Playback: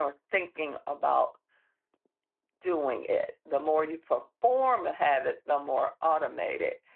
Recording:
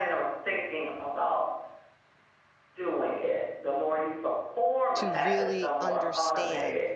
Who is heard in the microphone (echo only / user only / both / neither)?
both